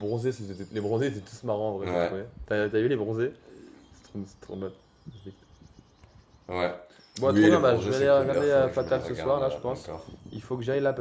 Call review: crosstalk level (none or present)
present